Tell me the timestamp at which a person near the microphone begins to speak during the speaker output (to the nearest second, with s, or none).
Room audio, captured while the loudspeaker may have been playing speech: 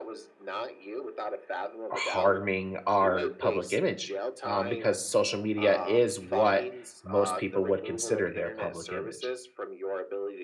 2 s